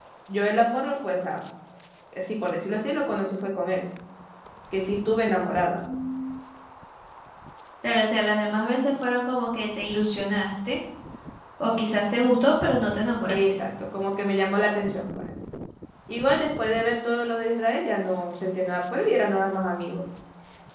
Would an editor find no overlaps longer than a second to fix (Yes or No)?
Yes